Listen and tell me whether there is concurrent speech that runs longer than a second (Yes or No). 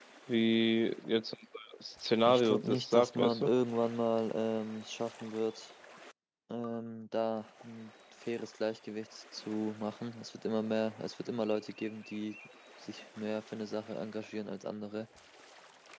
Yes